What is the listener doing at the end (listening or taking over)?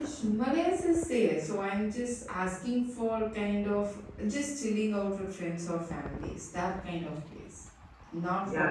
taking over